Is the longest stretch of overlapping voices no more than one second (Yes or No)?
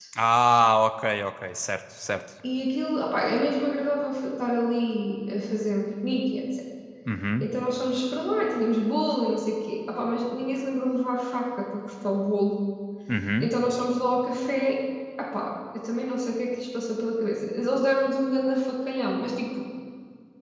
Yes